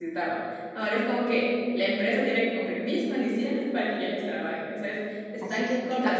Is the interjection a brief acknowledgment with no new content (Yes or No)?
No